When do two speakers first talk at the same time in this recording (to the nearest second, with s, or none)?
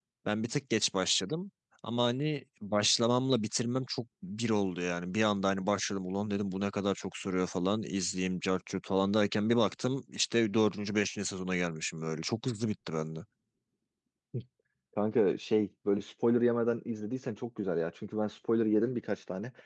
none